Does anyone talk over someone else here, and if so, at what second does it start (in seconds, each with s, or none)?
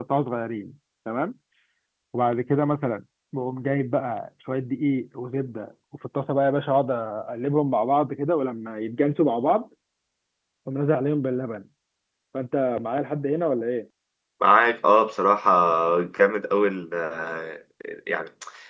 none